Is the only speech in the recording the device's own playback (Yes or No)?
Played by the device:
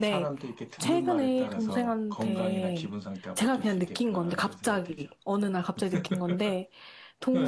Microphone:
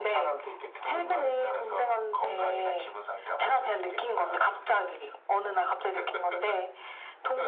Yes